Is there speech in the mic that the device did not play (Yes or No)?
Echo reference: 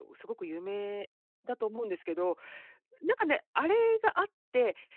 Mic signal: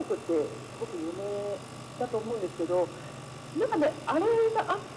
No